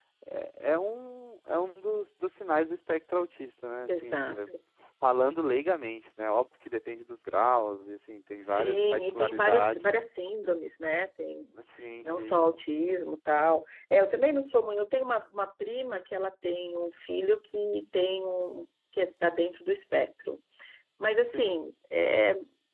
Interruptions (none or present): present